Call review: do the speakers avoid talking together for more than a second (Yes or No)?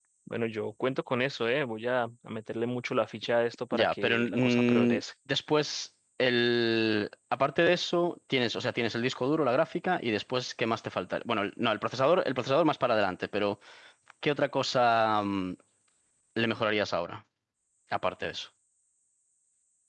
No